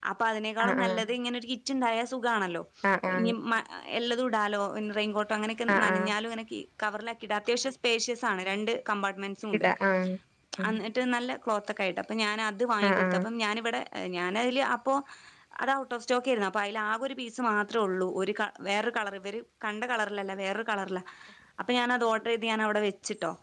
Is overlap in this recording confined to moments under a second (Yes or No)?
Yes